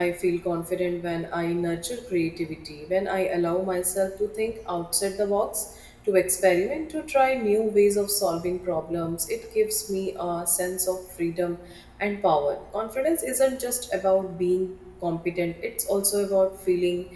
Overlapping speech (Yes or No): No